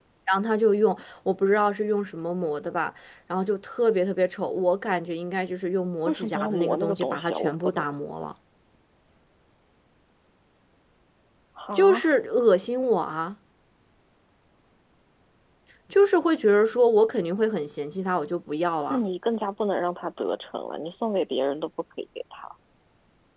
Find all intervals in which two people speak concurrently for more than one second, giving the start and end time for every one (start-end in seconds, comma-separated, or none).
6.1-7.8